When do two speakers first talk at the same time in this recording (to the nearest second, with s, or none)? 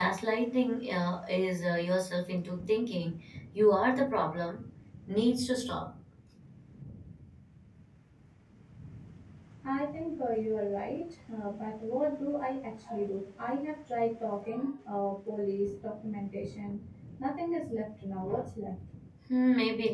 none